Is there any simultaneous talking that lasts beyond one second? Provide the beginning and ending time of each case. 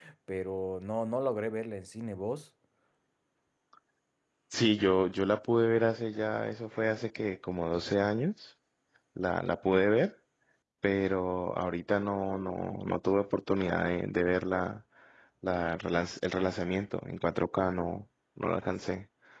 none

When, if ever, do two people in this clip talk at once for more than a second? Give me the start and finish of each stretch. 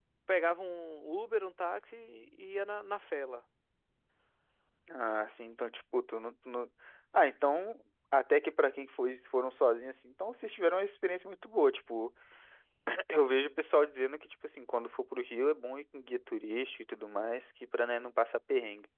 none

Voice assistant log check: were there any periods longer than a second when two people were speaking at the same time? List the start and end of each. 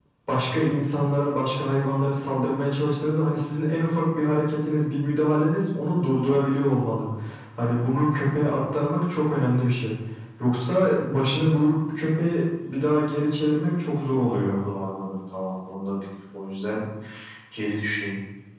none

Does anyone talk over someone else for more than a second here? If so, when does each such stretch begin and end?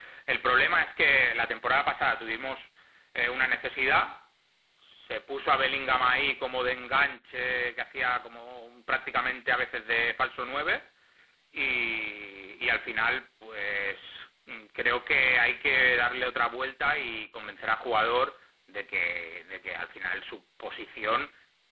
none

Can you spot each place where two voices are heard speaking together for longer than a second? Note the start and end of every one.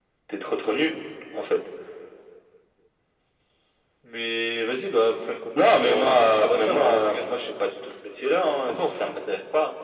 5.6-7.3

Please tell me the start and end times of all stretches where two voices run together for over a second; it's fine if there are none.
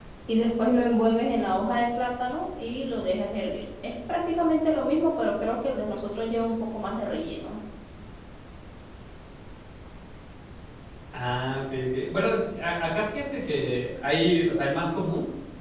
none

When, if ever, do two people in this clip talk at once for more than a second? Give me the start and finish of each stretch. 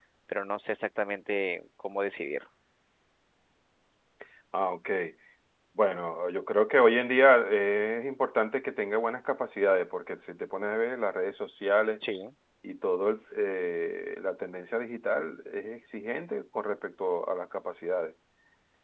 none

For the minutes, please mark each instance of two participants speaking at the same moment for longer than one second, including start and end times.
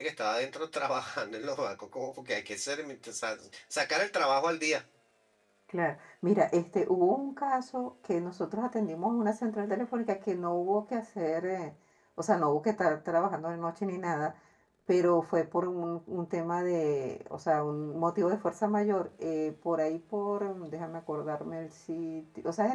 none

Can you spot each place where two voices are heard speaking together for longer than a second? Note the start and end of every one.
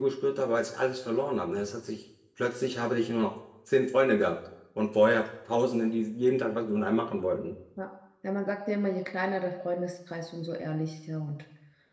none

